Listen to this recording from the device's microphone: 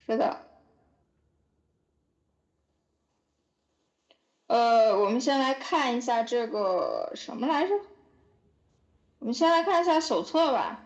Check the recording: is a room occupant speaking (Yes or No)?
No